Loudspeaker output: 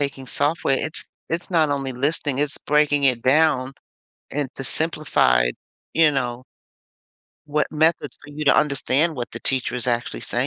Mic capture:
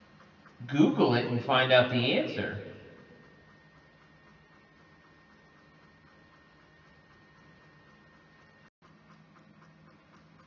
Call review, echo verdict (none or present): none